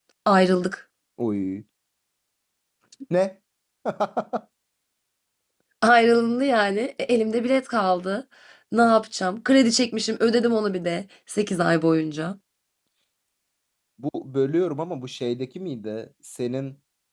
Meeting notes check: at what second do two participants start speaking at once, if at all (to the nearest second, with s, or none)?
none